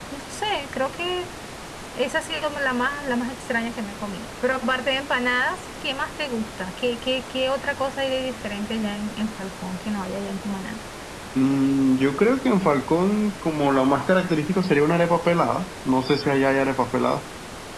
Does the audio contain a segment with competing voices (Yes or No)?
No